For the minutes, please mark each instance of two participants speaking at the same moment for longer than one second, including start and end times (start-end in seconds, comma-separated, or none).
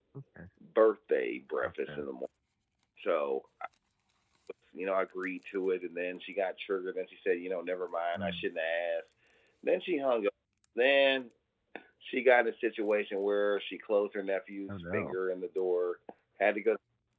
none